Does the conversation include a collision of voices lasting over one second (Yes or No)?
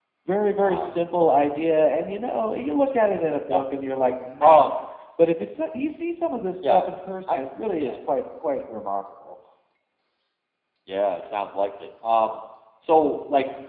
No